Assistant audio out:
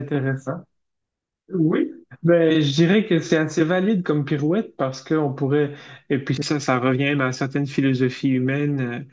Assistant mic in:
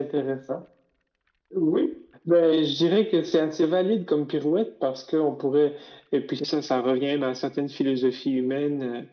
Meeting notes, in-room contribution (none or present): none